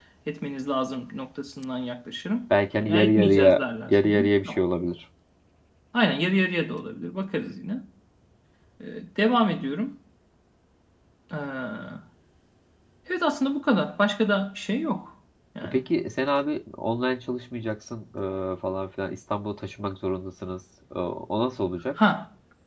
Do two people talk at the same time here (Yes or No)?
Yes